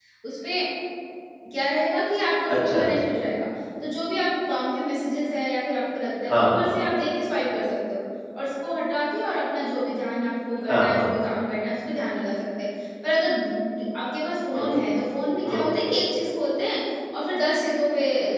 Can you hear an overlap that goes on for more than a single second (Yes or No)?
No